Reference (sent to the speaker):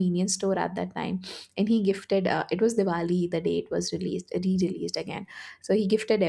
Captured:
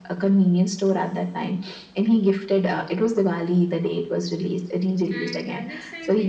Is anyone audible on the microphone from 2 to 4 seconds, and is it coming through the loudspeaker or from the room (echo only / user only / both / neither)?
echo only